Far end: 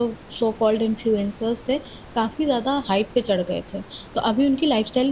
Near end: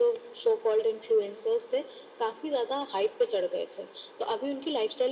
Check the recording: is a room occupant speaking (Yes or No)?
No